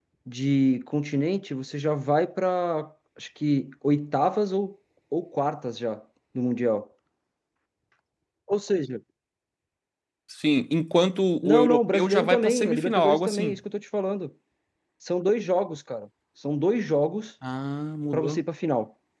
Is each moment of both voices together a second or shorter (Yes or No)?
No